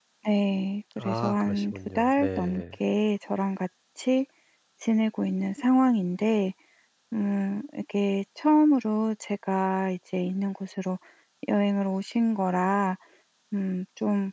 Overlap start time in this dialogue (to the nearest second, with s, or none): 1 s